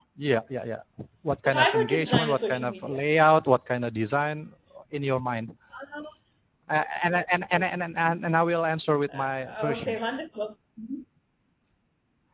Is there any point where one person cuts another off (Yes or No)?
Yes